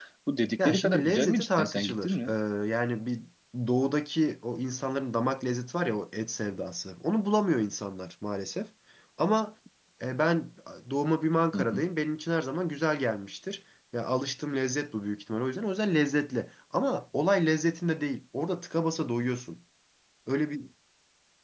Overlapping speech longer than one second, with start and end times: 0.6-2.3

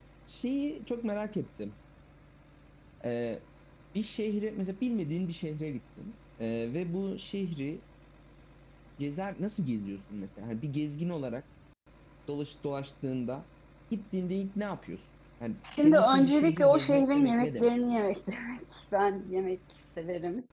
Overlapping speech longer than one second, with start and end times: 15.8-17.7

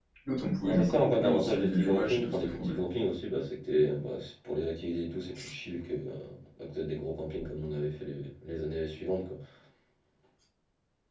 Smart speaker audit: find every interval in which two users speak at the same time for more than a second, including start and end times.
0.6-2.8

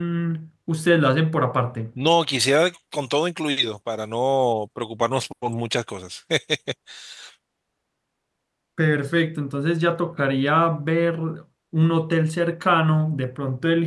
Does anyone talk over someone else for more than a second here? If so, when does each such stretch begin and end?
none

